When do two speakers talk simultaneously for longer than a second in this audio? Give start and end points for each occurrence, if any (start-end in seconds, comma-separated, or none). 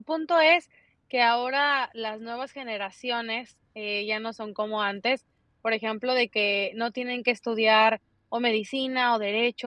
none